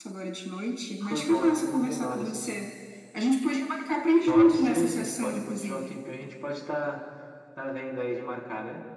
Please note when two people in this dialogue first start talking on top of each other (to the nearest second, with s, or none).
1 s